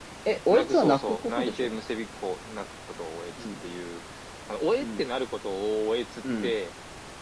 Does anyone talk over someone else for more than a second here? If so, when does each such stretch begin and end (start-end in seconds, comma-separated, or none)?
0.5-1.8